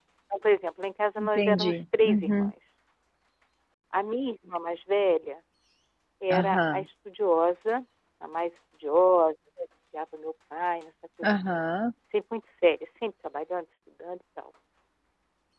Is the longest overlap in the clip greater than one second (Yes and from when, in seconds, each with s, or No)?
Yes, from 1.2 s